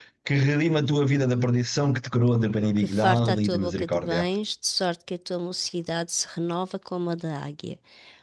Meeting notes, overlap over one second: present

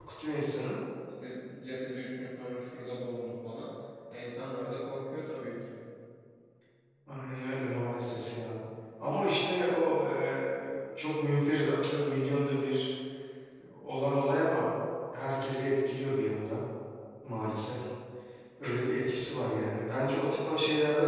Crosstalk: none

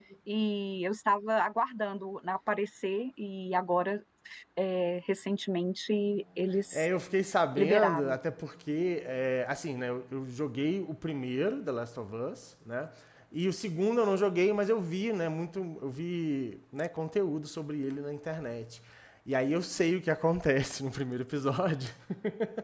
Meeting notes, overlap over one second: none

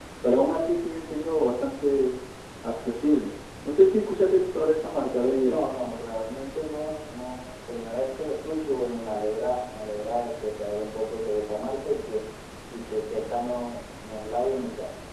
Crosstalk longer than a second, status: none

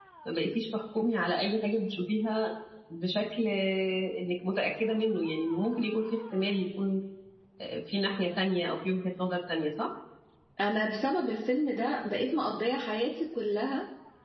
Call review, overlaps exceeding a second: none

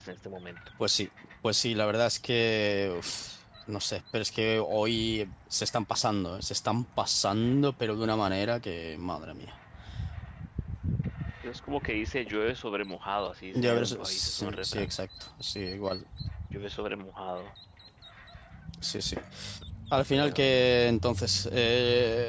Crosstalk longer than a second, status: present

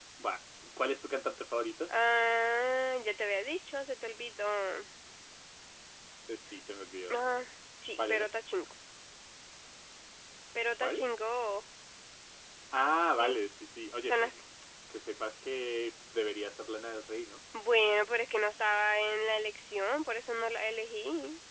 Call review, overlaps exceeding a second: none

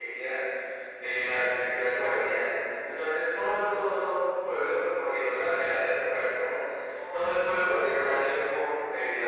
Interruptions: present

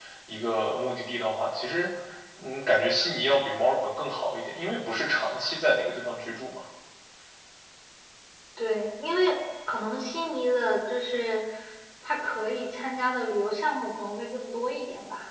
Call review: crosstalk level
none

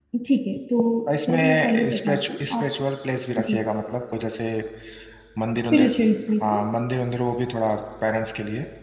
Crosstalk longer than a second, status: present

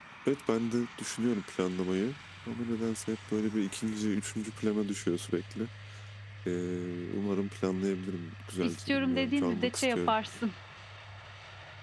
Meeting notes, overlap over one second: present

